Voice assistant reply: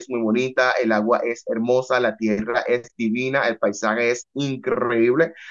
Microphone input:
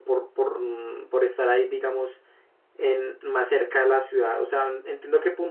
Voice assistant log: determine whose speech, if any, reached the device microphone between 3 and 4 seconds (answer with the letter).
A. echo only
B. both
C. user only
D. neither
C